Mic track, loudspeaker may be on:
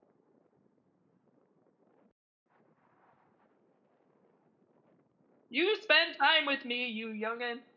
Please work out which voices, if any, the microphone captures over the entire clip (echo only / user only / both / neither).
user only